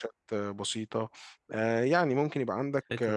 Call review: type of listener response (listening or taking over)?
listening